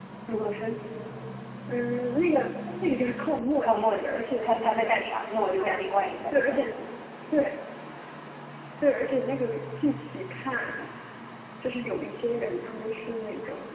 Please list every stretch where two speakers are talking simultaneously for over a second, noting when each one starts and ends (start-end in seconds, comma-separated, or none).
3.6-5.0